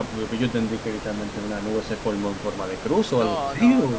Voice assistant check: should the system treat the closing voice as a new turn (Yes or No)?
Yes